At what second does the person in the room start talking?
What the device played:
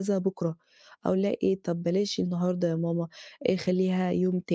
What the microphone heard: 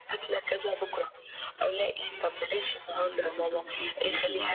2.9 s

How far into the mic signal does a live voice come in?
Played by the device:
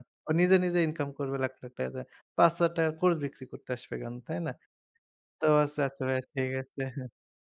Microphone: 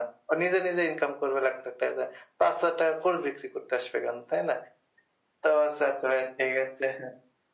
none

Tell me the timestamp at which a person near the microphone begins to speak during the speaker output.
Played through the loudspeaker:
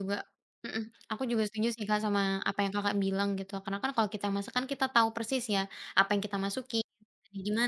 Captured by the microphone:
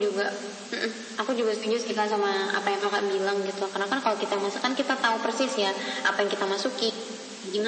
none

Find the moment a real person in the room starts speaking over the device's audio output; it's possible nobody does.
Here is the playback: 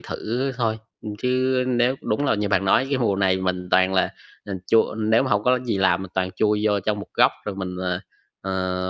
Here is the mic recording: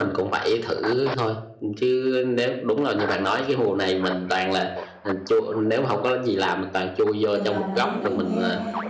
7.3 s

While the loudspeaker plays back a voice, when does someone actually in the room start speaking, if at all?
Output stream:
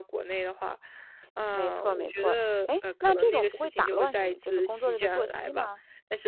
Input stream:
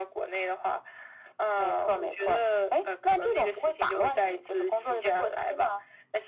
none

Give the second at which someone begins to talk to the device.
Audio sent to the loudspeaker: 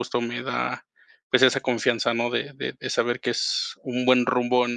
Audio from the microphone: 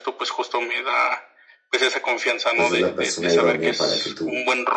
2.5 s

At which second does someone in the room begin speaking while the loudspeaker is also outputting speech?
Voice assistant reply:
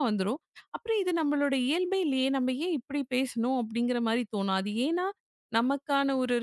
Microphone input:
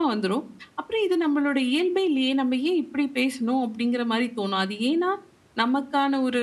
none

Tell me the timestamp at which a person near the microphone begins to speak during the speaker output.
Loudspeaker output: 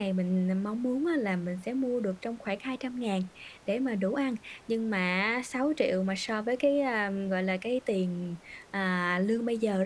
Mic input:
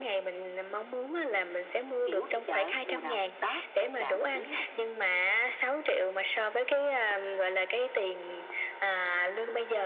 2.0 s

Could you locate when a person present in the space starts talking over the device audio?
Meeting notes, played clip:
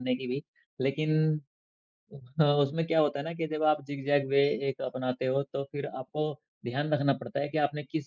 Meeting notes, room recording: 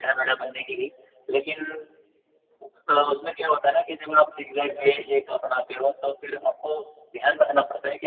none

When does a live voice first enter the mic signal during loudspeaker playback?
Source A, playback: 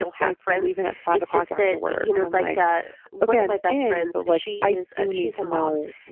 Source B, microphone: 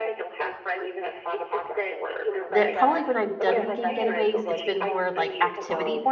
2.5 s

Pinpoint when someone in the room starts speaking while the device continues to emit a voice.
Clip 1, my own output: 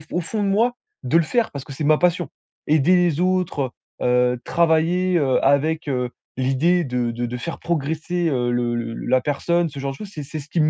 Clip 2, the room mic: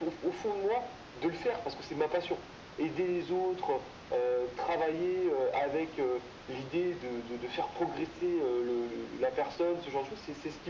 none

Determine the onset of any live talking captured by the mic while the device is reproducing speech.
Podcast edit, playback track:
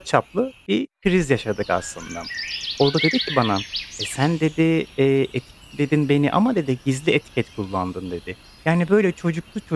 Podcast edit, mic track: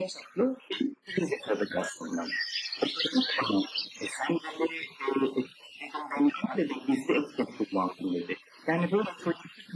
none

